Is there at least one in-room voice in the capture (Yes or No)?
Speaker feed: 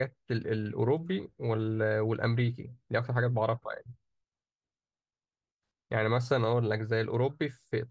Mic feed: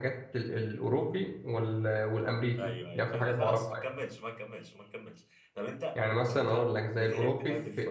Yes